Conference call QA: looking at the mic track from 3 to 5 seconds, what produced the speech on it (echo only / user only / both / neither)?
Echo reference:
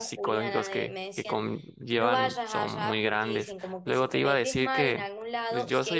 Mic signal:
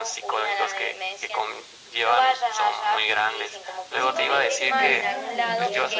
both